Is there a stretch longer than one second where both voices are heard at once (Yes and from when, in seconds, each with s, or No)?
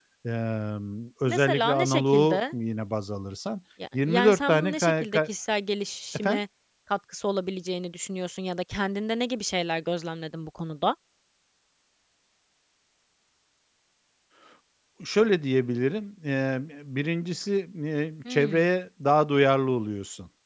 Yes, from 1.3 s